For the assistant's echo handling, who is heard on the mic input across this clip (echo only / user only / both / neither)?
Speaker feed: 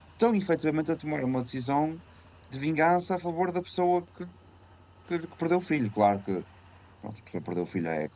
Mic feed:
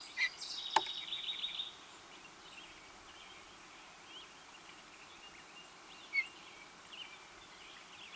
neither